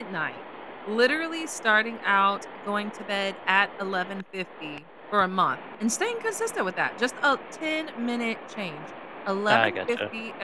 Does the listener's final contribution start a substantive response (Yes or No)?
No